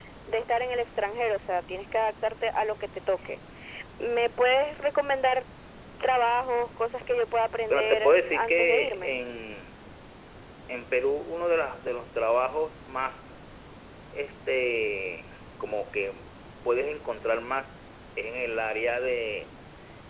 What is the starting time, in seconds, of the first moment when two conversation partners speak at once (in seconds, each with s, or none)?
7.7 s